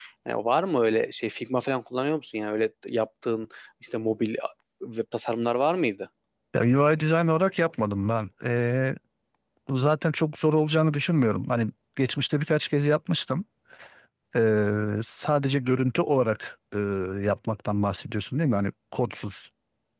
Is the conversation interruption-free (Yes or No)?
Yes